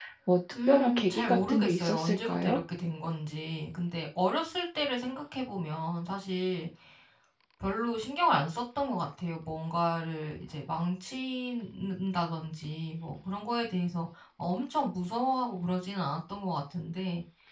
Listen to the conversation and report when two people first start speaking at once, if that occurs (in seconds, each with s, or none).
0.7 s